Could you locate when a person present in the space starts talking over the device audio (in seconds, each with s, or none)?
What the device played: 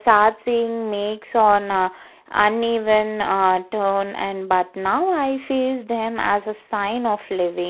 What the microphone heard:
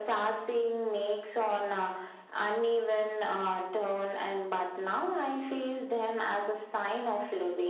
none